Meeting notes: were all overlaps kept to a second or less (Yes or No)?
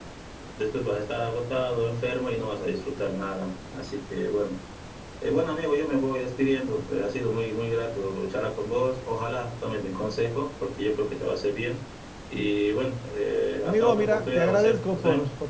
No